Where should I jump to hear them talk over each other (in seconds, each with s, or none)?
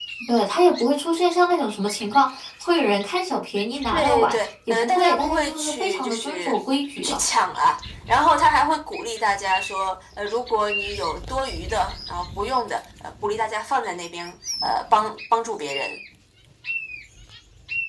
3.9 s